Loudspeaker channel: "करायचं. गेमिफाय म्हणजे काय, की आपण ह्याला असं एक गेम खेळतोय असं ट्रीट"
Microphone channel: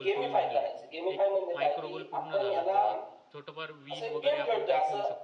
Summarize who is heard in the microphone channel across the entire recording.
both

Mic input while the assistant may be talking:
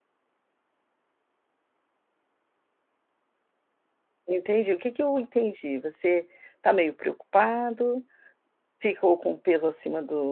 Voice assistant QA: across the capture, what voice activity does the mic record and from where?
user only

